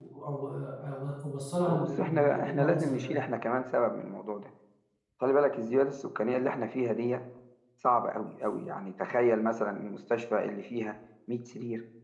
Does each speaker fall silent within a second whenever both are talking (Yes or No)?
No